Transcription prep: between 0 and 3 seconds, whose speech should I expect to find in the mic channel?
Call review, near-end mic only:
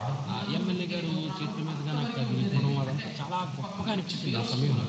both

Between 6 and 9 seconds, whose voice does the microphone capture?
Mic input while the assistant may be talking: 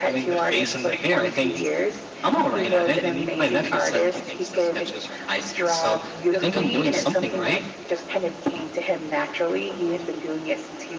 echo only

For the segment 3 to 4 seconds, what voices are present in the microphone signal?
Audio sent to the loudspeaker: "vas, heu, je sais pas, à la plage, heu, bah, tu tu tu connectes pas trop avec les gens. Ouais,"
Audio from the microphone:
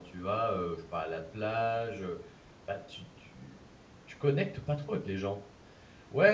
echo only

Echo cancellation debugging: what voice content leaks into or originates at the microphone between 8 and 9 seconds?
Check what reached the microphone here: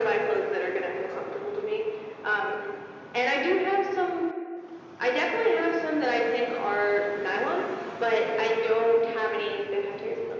echo only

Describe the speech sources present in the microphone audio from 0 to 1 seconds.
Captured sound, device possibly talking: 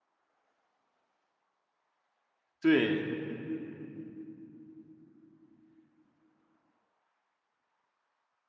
neither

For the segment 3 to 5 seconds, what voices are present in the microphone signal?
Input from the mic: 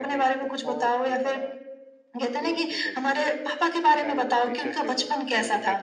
both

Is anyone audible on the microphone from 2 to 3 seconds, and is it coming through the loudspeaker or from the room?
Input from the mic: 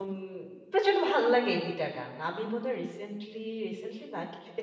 user only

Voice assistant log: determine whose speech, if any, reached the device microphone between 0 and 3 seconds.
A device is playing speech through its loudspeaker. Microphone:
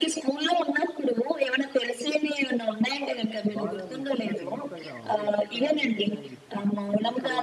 echo only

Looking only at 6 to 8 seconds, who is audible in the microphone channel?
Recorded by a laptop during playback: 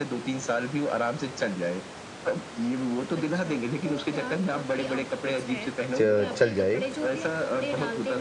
both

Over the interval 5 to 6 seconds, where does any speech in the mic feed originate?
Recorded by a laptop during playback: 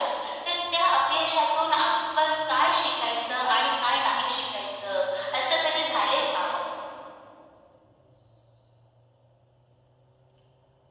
echo only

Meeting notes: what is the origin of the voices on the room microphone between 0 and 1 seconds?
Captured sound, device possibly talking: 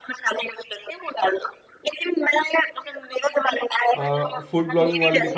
echo only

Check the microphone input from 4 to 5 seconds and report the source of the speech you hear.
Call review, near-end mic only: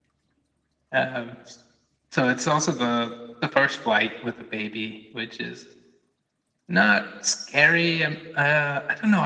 echo only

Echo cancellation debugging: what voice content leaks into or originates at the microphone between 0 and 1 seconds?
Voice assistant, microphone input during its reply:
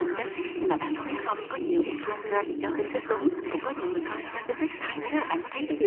both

